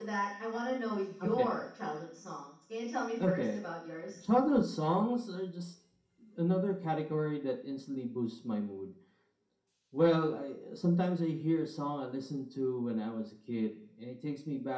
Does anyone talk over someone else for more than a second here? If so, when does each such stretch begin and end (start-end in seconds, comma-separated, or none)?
none